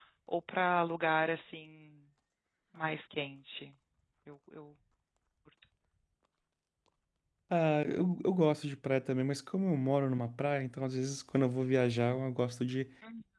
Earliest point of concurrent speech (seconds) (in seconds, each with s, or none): none